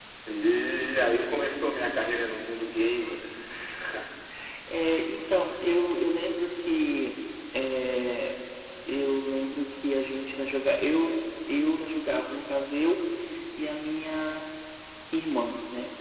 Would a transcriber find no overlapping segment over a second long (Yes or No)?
Yes